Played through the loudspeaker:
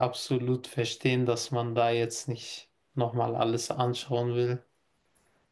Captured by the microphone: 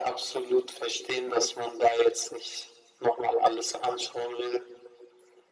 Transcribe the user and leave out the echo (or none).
none